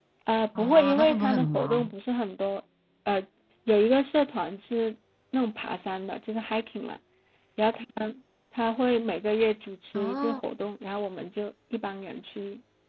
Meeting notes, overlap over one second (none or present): present